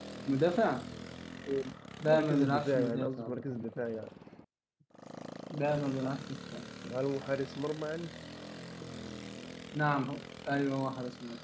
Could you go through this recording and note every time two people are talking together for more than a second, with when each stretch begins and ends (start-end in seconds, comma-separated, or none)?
2.1-3.4